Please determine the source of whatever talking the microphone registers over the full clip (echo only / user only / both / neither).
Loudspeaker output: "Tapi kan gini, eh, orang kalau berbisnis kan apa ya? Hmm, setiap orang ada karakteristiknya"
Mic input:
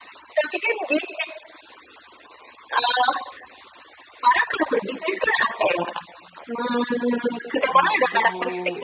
both